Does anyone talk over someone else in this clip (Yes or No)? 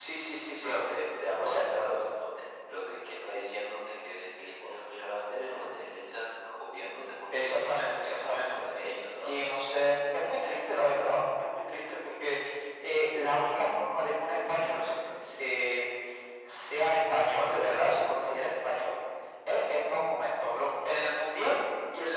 Yes